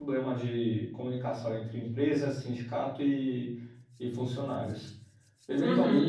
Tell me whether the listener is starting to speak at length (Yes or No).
No